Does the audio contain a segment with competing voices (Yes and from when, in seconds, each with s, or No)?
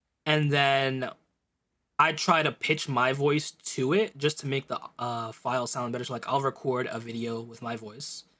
No